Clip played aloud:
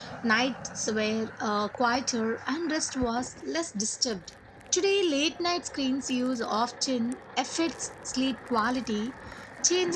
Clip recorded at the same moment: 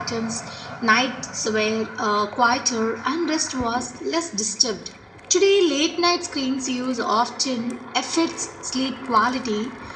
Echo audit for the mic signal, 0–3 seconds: echo only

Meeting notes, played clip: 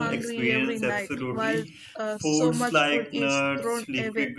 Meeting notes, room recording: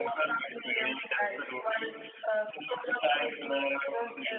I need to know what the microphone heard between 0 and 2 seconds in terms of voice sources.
echo only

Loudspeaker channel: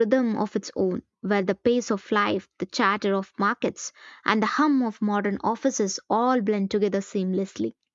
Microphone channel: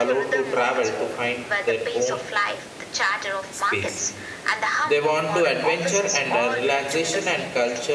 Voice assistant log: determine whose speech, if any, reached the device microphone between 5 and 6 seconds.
both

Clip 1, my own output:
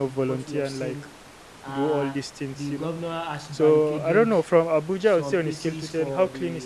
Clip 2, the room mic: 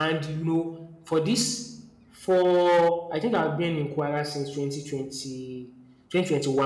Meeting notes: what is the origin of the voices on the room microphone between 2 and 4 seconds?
user only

